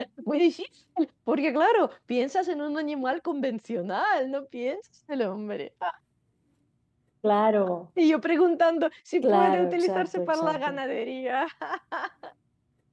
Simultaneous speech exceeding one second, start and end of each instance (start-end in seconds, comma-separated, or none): 9.2-10.8